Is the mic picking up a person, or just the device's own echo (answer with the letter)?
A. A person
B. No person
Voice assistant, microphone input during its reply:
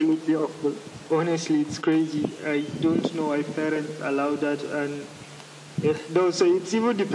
B